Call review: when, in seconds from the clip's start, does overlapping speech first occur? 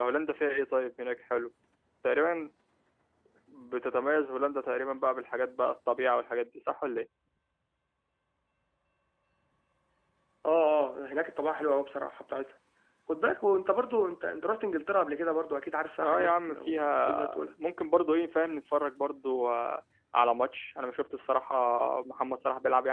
16.0 s

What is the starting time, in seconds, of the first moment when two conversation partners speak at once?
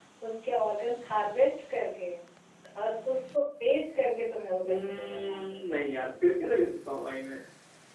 4.6 s

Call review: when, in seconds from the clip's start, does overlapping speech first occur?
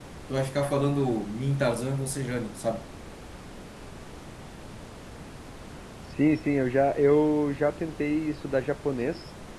none

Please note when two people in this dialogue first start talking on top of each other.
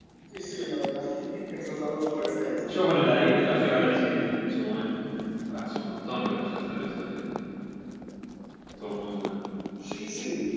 none

